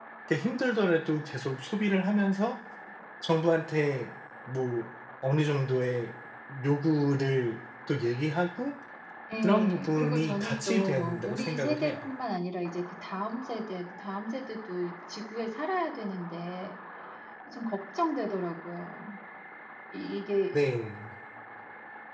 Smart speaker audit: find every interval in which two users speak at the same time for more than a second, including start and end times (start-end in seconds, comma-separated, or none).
9.4-12.1